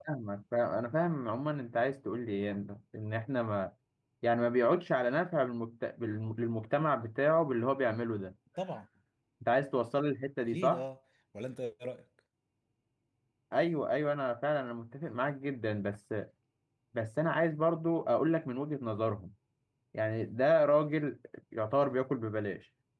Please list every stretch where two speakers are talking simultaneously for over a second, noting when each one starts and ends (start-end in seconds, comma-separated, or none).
none